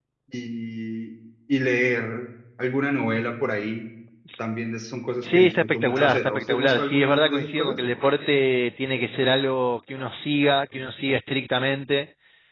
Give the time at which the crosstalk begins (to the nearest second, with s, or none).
5 s